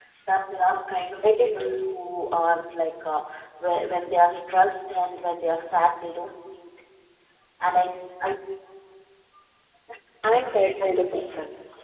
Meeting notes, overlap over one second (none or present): none